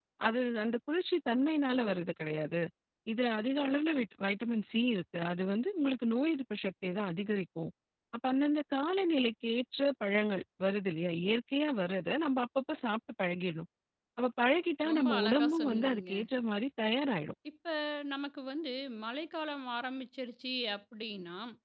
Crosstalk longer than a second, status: present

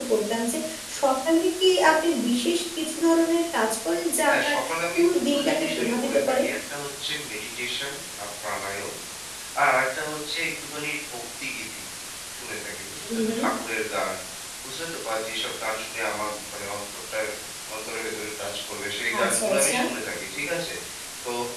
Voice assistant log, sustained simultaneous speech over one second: present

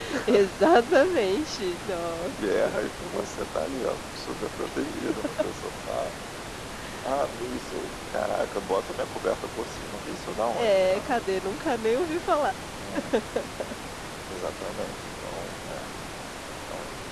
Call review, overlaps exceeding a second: none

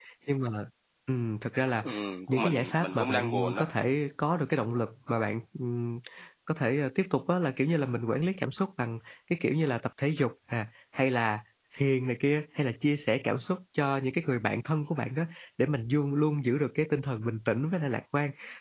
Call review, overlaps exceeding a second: present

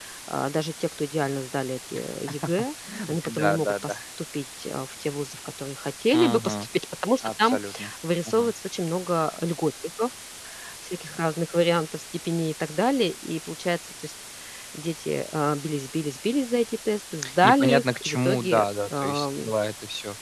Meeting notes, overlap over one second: present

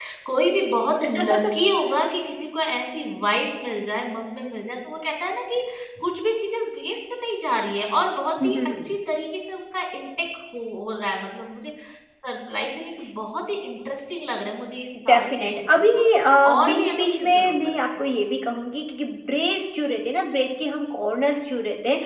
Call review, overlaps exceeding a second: present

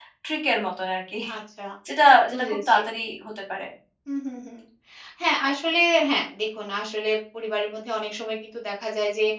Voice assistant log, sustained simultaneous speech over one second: none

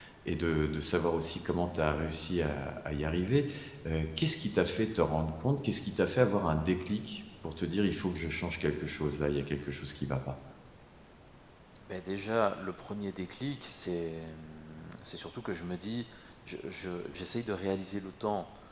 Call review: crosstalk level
none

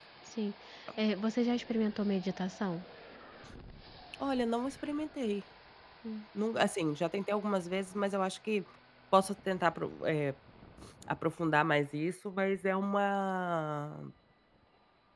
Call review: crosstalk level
none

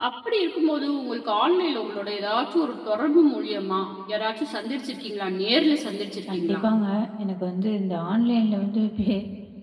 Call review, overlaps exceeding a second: none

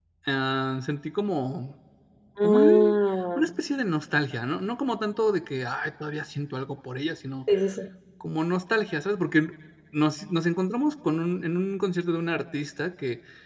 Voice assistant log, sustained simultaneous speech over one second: none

